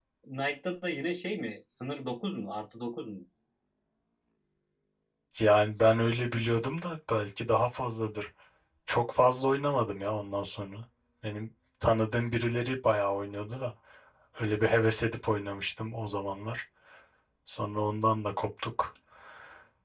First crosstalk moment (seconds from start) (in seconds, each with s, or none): none